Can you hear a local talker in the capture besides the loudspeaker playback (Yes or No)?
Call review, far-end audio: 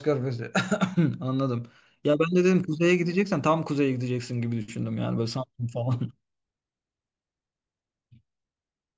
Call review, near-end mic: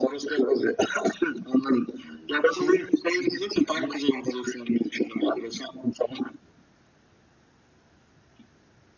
Yes